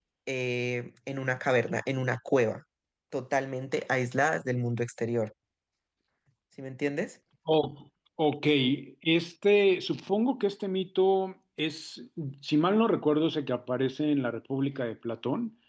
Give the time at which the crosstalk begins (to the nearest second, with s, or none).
none